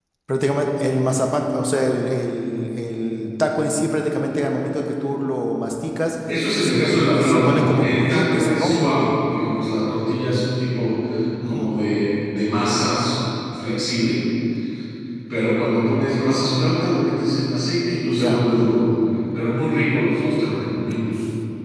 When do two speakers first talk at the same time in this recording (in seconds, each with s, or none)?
6.6 s